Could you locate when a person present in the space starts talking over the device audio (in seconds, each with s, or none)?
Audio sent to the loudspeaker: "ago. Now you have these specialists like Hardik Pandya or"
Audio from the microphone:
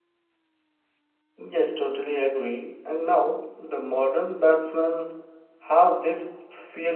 1.4 s